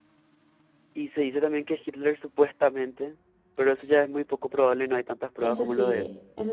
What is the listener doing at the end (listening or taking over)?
taking over